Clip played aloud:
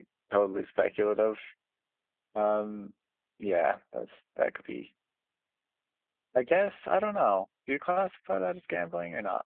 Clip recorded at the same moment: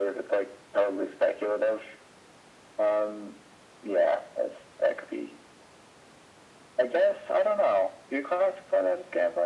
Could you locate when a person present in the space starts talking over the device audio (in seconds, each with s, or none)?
none